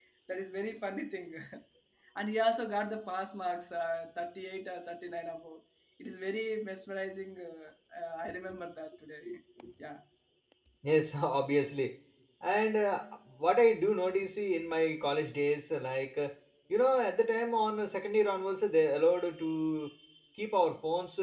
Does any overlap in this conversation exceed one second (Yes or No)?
No